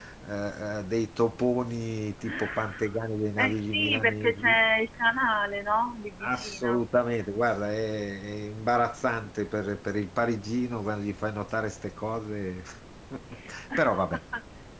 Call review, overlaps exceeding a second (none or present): present